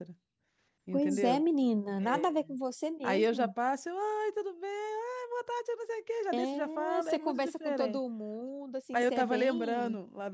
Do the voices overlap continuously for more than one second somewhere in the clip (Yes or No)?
Yes